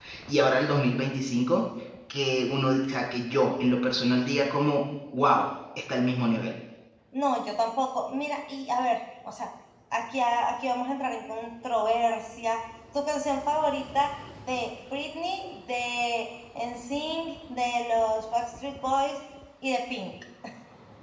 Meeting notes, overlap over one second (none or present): none